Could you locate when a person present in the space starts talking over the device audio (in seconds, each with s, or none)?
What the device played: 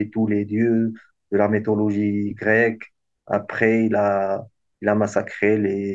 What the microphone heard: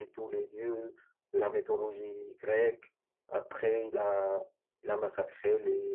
none